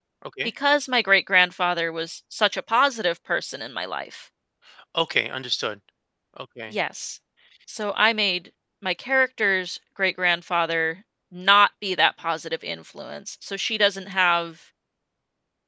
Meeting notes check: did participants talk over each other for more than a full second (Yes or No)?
No